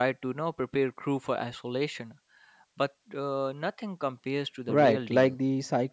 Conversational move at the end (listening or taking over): taking over